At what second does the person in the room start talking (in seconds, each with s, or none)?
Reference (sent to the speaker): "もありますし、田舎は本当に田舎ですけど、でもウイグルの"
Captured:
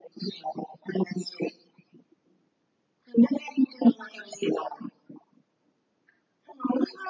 none